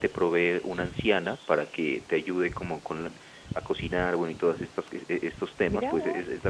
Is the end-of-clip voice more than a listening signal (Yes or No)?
Yes